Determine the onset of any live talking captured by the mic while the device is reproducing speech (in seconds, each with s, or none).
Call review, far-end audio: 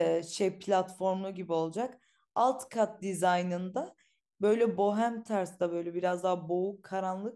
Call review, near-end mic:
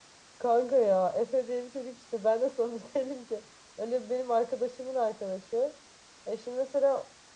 0.4 s